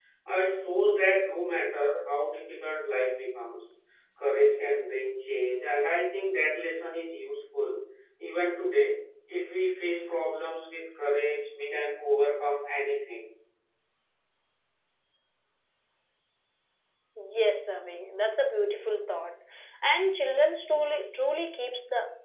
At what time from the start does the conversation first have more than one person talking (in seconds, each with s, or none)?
none